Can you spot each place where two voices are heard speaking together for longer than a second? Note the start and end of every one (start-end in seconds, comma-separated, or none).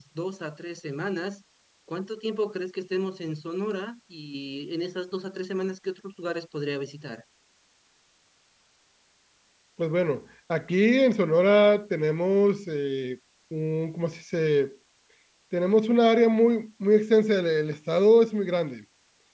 none